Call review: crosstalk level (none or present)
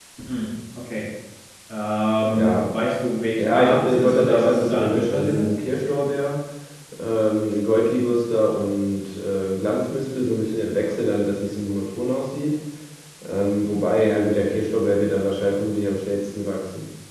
present